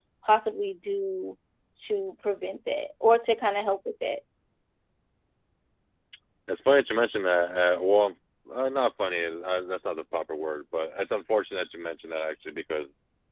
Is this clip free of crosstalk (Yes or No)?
Yes